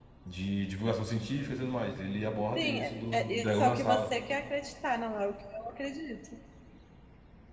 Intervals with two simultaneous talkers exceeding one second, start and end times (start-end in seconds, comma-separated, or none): 2.6-4.1